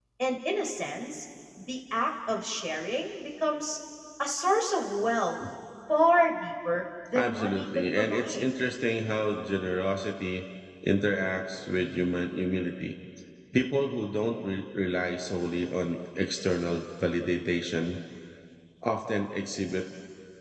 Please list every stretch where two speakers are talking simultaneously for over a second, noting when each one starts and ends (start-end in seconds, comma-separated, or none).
7.2-8.5